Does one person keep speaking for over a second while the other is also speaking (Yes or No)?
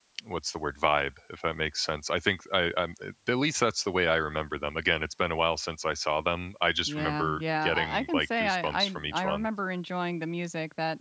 Yes